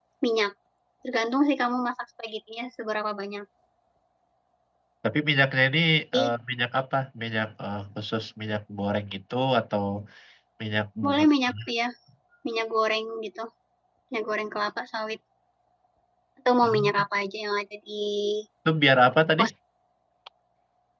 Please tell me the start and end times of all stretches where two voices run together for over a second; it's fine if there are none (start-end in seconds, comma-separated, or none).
none